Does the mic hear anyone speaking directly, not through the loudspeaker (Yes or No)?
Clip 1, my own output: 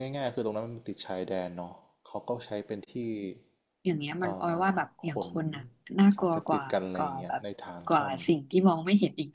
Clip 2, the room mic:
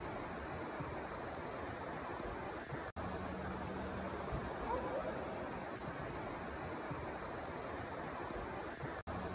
No